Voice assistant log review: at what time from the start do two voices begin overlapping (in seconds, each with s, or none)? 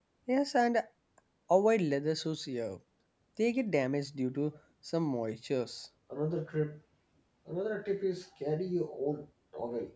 none